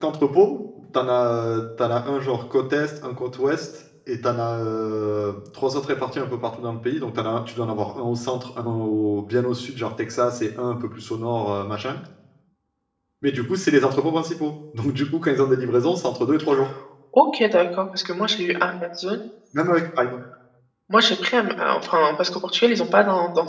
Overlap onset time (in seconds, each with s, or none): none